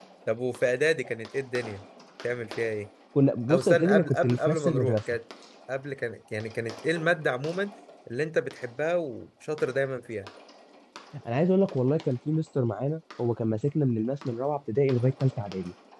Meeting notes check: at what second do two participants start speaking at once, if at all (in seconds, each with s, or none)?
3.5 s